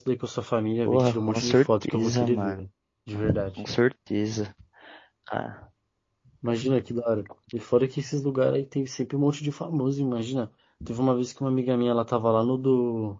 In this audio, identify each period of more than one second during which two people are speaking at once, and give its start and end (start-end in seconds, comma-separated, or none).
0.9-2.6